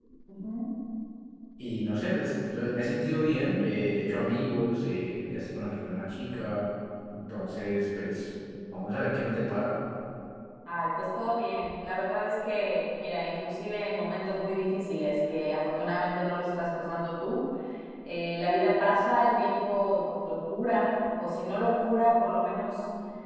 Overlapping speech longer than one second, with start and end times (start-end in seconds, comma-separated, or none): none